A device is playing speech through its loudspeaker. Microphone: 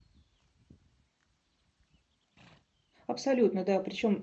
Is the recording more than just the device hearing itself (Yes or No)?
Yes